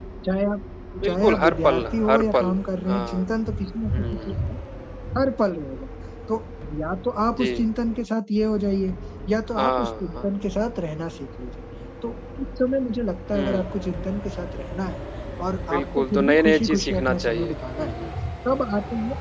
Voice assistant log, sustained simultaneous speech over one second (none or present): present